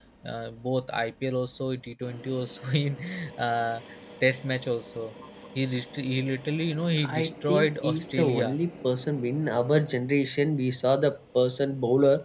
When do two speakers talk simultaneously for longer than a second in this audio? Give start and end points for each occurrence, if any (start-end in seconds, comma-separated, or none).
7.2-8.6